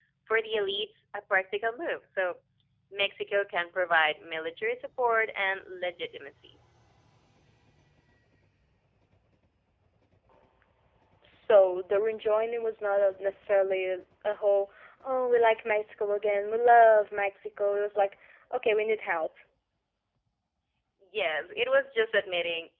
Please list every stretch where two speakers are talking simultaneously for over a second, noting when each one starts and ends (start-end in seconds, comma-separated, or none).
none